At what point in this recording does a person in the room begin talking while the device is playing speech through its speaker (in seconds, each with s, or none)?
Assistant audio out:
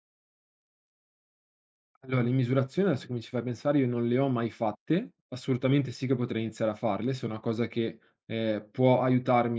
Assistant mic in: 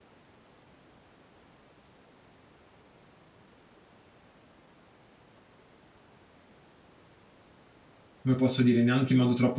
8.2 s